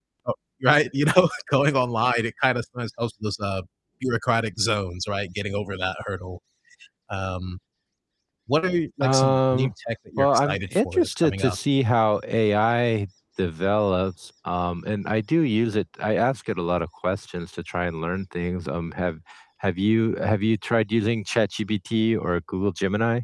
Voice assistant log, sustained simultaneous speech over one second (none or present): present